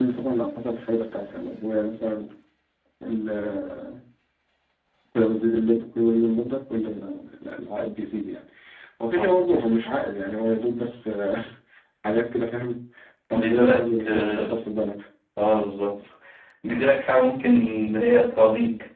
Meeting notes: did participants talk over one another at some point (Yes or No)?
Yes